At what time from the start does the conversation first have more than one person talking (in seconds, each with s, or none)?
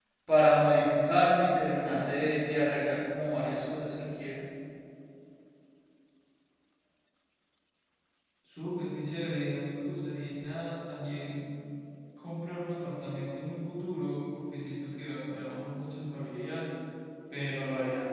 none